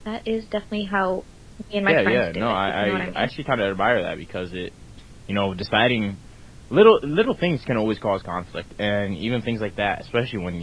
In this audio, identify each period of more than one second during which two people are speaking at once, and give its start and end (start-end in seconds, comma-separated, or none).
1.9-3.3